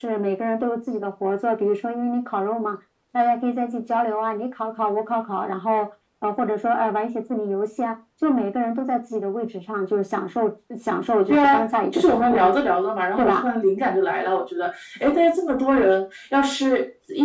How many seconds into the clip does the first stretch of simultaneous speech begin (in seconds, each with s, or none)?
11.3 s